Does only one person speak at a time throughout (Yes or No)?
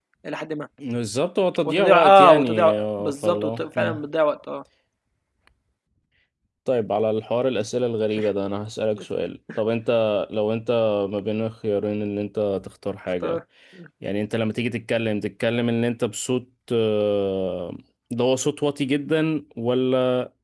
No